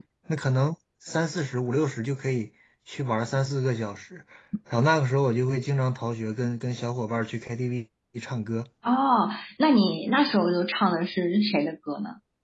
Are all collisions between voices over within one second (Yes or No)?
Yes